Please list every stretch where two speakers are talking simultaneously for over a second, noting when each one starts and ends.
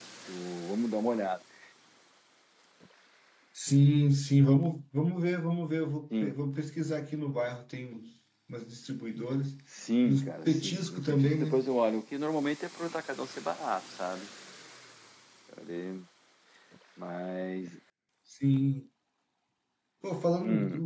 10.1-11.6

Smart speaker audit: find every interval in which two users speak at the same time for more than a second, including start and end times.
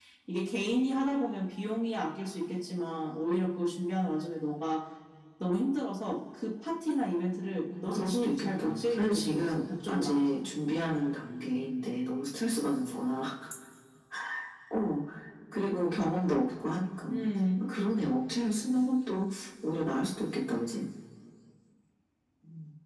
7.7-10.4

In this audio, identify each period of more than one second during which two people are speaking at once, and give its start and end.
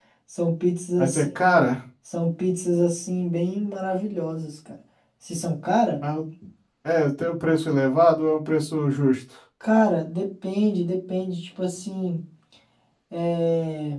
none

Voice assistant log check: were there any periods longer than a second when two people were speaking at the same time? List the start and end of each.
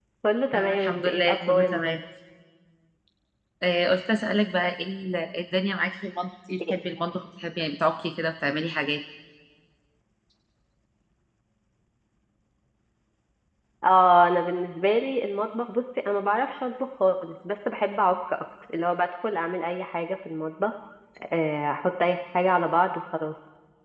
0.5-2.0

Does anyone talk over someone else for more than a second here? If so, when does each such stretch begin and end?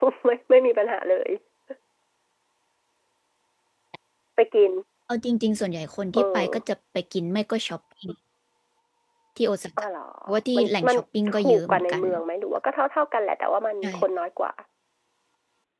10.6-12.0

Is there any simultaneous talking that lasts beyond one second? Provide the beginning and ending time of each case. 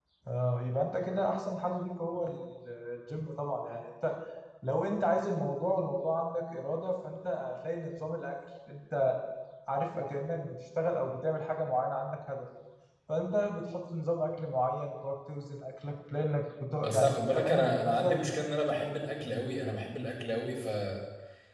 16.8-18.2

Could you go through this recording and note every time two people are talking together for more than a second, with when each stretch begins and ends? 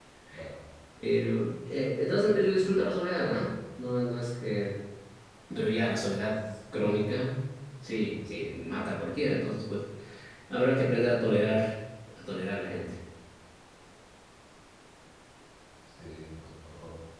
2.2-3.5

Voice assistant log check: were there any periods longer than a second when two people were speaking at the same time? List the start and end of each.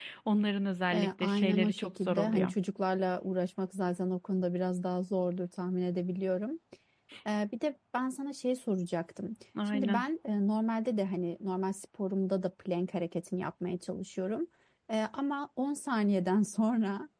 0.9-2.5

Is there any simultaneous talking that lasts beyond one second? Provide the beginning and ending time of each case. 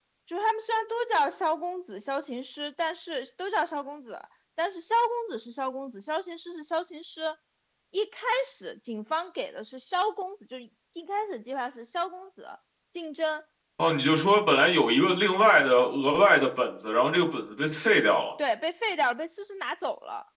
none

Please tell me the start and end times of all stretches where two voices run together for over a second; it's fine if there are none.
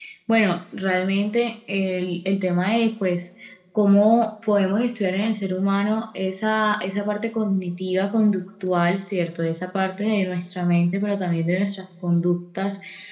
none

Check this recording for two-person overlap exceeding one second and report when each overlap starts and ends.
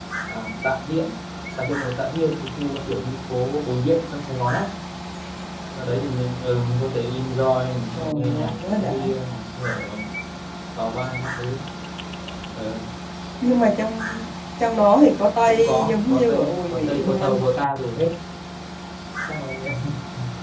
7.9-9.1, 15.5-17.4

